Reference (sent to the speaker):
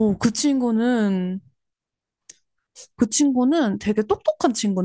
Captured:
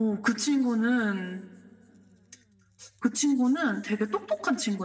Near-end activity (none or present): none